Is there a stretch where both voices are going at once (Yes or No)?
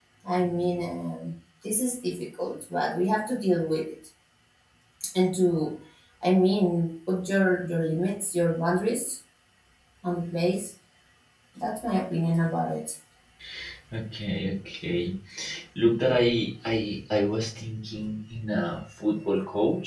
No